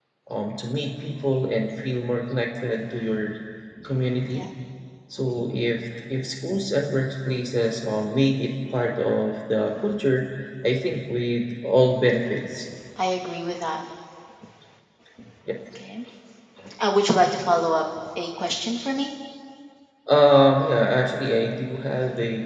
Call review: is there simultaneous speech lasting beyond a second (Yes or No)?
No